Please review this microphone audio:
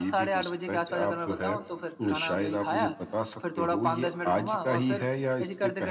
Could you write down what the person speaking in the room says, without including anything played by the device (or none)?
none